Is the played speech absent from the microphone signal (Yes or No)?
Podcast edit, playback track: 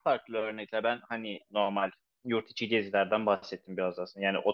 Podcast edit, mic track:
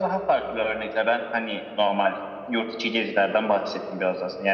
No